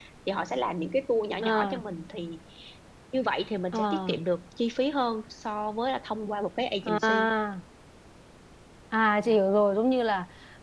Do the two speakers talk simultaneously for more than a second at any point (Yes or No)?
No